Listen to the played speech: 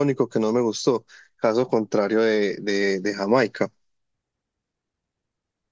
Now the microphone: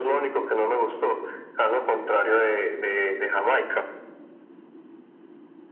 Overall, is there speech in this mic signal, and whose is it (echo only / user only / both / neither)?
echo only